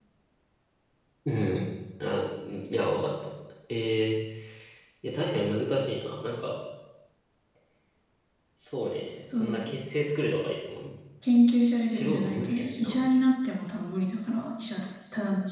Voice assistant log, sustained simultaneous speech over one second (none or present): present